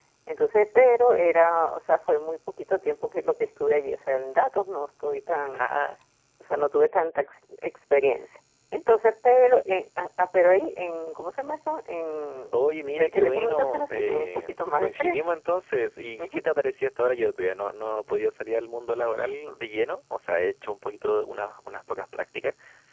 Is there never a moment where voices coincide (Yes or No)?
No